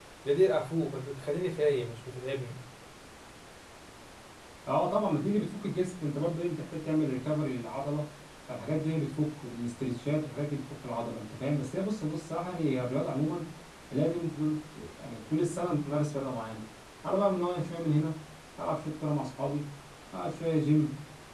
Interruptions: none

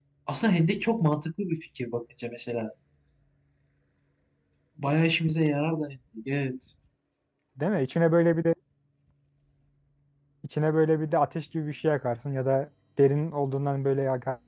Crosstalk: none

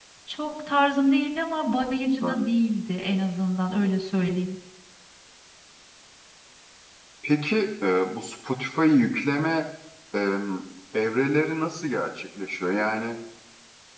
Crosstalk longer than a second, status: none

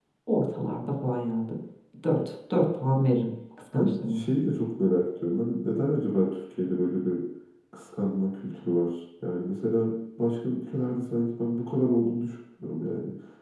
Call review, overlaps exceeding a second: none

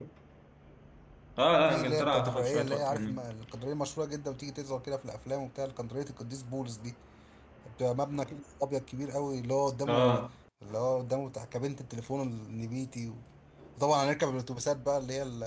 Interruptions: present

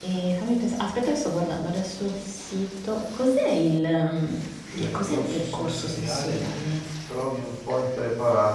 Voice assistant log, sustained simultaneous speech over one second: present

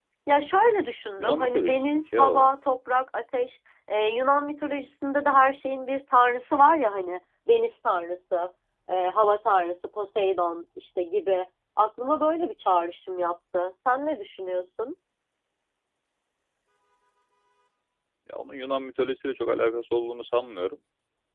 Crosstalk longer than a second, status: present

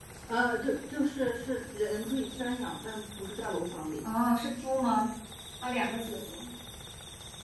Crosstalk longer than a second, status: none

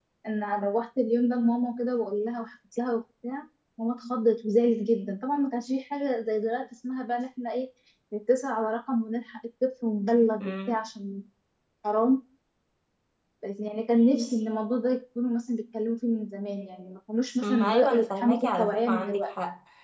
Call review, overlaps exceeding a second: present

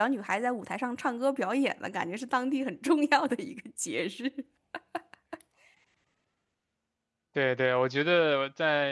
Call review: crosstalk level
none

